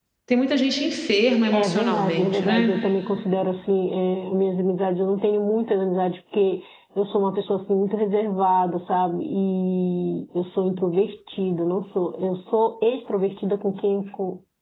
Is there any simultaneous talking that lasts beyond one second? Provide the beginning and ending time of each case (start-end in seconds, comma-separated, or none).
1.5-2.7